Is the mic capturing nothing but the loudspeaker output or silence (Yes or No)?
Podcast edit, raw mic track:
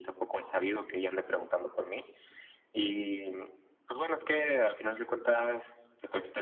Yes